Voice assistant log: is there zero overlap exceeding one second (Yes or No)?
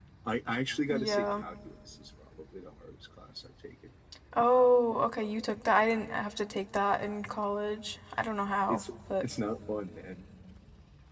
Yes